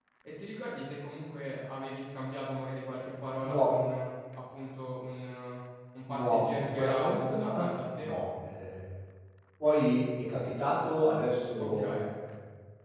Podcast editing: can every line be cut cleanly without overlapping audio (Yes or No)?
No